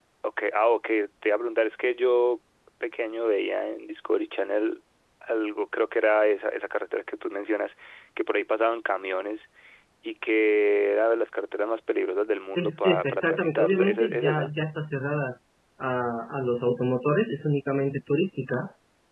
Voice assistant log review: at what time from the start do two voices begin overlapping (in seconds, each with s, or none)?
12.6 s